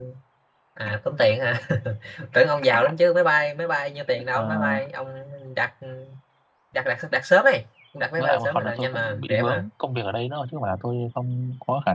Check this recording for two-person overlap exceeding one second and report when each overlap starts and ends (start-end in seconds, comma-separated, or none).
8.2-9.7